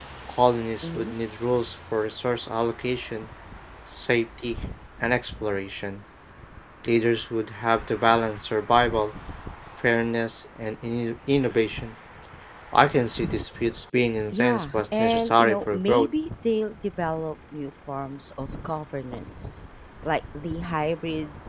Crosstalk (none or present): present